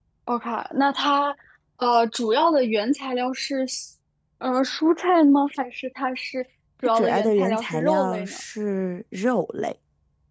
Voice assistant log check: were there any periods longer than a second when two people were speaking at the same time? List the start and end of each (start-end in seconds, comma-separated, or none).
7.0-8.4